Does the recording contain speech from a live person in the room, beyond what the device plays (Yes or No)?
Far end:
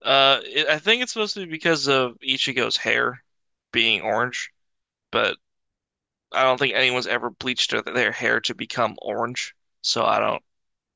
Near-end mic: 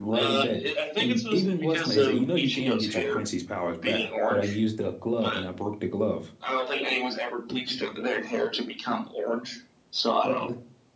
Yes